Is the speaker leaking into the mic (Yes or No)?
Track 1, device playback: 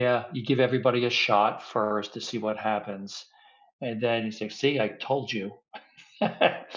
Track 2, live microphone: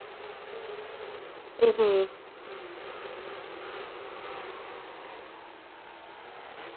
No